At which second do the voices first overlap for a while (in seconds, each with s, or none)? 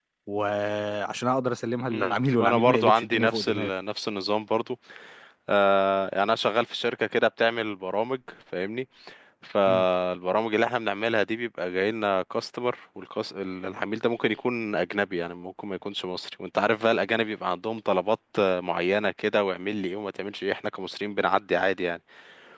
1.9 s